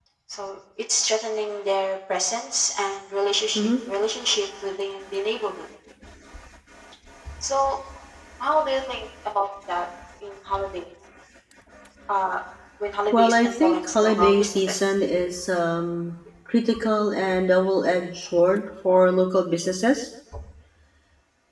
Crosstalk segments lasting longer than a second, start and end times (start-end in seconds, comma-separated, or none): 13.1-14.8